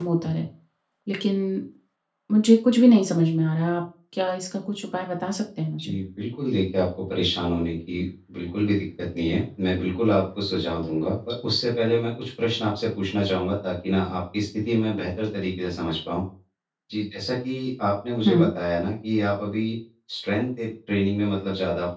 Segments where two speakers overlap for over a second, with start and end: none

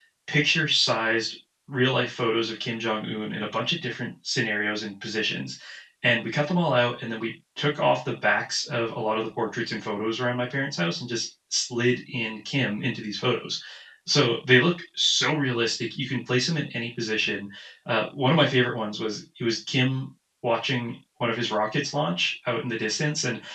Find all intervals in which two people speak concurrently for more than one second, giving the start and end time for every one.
none

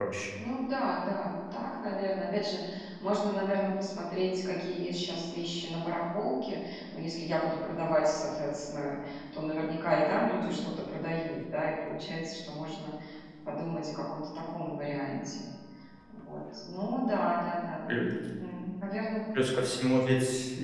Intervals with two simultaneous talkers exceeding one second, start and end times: none

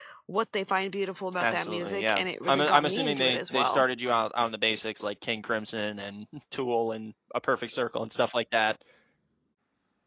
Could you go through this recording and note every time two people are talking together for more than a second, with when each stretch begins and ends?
1.4-3.8

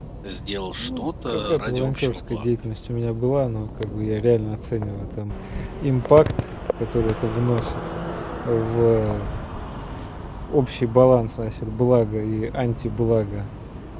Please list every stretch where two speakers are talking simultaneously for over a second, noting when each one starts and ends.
0.8-2.4

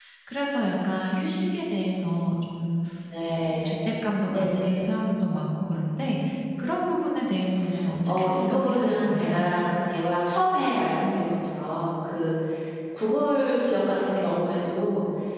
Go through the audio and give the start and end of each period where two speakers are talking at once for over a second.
8.1-9.4

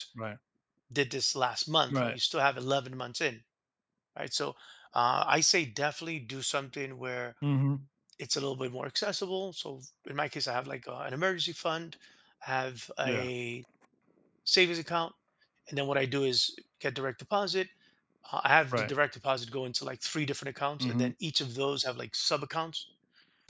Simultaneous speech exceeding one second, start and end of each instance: none

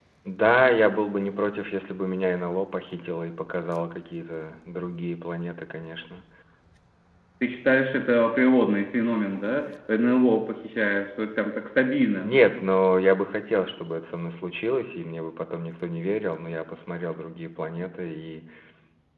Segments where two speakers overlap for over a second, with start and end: none

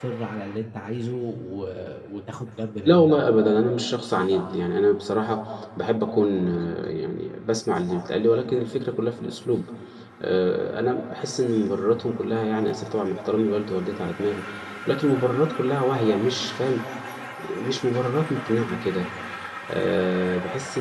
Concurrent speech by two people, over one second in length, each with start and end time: none

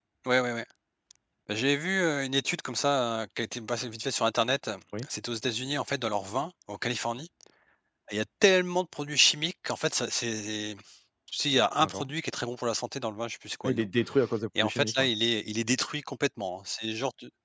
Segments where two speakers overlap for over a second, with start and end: none

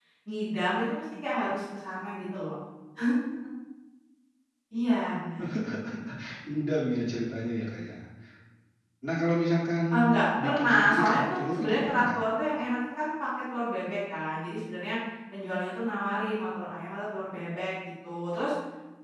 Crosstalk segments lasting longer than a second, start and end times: 10.4-12.2

